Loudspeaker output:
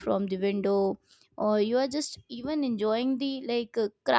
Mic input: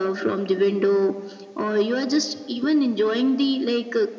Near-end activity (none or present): none